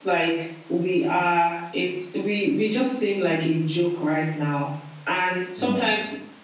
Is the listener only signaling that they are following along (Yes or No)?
Yes